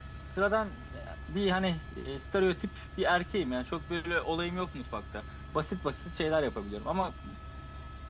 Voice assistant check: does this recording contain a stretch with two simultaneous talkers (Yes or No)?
No